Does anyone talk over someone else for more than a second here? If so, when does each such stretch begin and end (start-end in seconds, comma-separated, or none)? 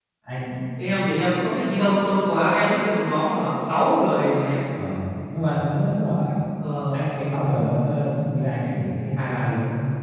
none